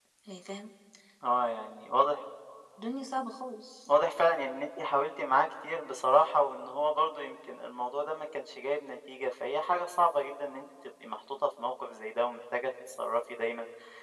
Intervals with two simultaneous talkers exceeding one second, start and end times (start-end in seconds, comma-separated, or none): none